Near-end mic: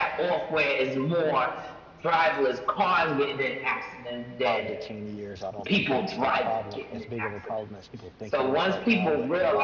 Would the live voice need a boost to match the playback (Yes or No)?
Yes